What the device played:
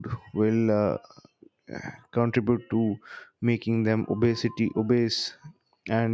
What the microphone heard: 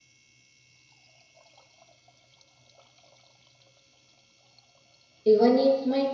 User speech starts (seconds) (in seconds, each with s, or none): 5.2 s